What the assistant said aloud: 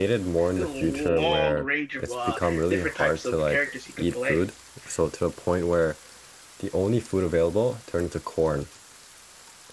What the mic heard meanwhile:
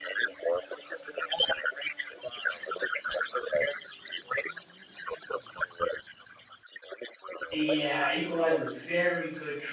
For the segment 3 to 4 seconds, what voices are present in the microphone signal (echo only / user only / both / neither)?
echo only